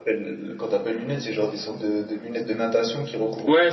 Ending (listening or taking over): taking over